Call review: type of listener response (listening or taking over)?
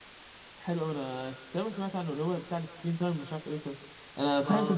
listening